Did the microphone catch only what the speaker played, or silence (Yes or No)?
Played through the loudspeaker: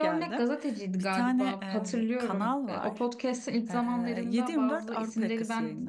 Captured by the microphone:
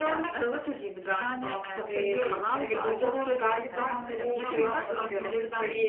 No